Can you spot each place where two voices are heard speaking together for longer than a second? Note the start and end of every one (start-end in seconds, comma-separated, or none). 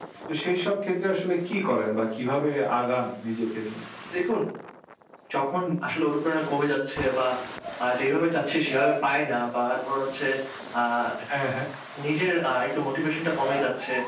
none